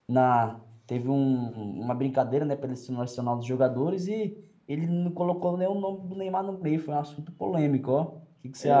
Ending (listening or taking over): taking over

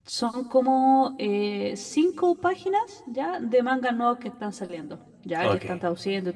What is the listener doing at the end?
listening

